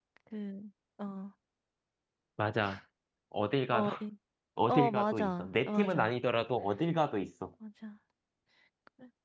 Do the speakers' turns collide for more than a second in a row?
Yes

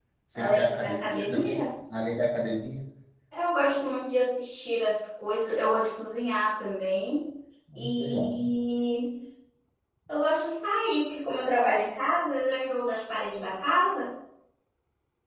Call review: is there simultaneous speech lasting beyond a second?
Yes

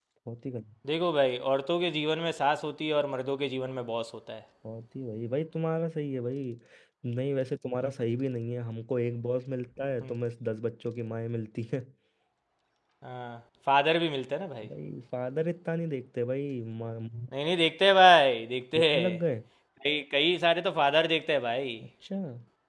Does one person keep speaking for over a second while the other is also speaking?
No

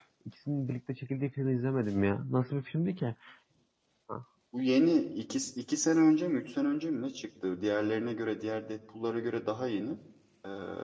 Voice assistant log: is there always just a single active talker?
Yes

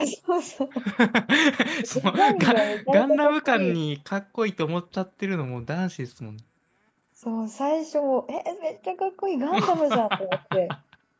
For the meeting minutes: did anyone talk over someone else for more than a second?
Yes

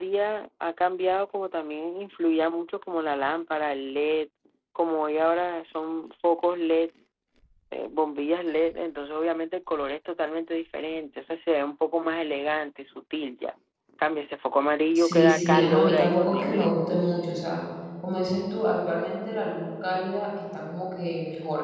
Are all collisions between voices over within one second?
No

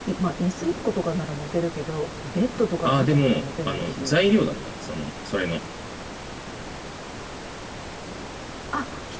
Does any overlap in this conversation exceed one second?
Yes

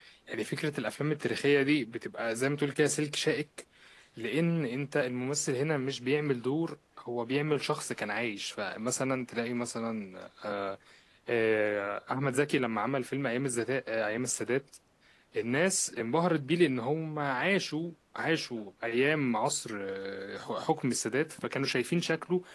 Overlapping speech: No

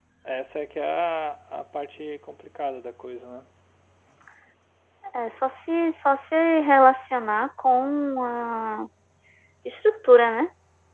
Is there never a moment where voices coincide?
Yes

